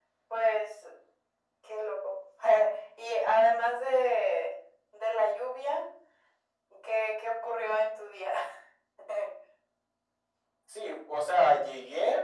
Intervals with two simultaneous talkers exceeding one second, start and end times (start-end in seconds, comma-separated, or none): none